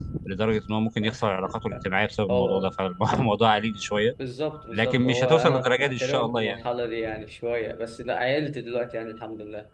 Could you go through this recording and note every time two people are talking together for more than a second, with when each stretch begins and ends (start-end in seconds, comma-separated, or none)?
4.7-6.6